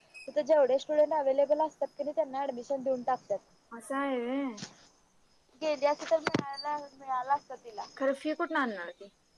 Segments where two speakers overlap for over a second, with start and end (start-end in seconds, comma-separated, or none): none